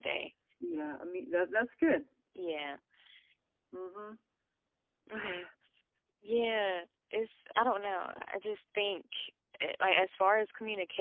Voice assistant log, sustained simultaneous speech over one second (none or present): none